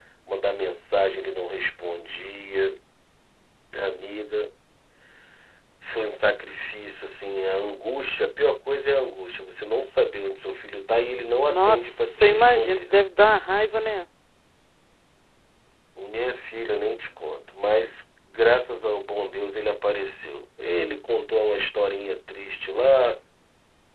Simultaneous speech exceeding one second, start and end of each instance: 11.5-12.9

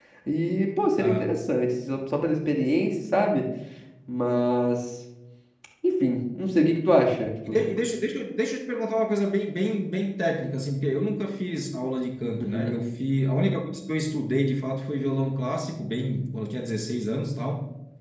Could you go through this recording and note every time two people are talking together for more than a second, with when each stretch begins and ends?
none

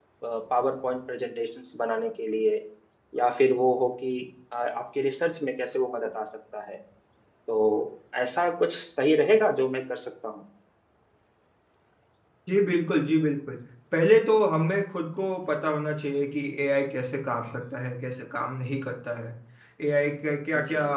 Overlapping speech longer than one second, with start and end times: none

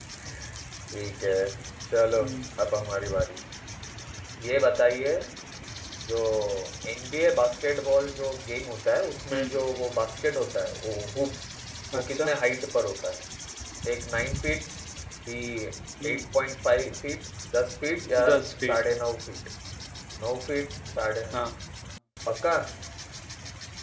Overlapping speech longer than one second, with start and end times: none

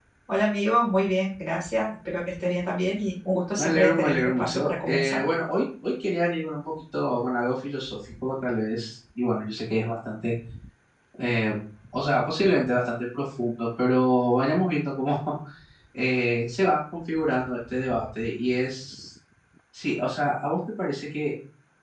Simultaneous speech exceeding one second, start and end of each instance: 3.5-5.2

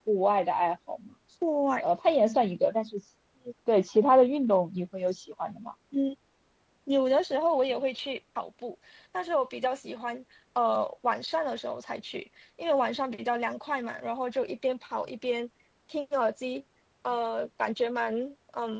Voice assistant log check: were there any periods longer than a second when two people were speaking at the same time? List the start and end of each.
none

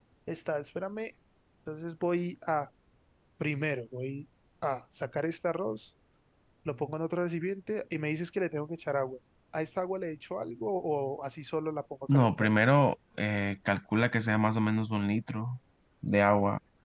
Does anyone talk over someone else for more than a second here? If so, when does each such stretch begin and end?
none

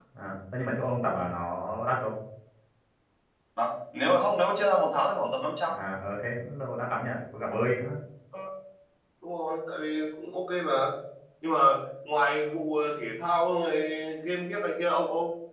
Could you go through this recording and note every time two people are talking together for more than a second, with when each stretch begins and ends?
none

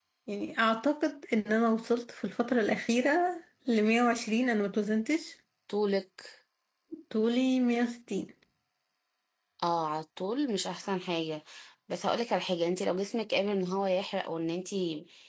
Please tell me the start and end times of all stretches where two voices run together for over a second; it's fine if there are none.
none

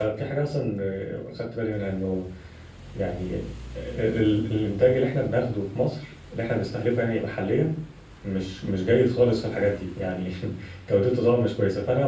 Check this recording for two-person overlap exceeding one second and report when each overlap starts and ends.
none

